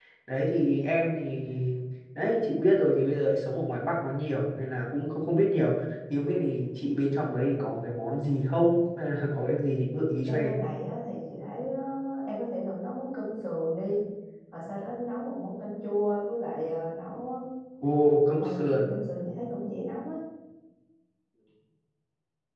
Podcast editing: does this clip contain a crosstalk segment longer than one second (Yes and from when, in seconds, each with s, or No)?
No